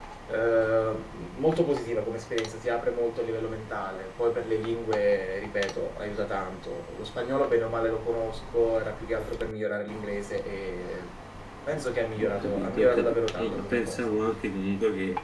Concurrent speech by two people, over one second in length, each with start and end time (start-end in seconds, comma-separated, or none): 12.2-14.0